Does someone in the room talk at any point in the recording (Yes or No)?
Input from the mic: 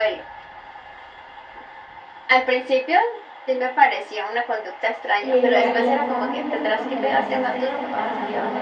Yes